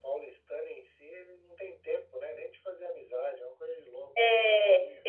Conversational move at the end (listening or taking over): taking over